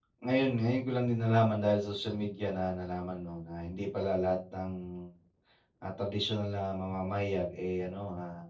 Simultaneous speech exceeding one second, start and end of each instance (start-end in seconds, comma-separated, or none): none